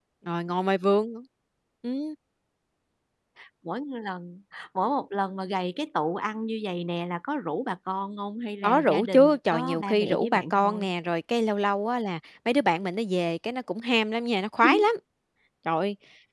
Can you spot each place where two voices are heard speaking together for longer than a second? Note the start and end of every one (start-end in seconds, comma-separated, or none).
8.6-10.9